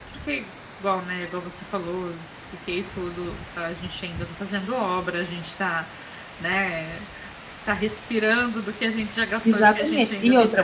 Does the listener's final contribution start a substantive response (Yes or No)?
Yes